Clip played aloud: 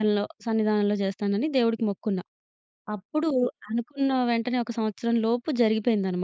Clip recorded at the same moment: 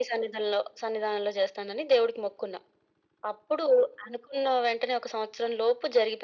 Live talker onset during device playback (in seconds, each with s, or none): none